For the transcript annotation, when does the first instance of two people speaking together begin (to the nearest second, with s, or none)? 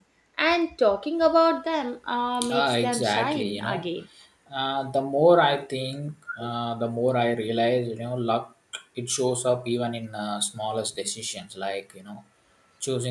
2 s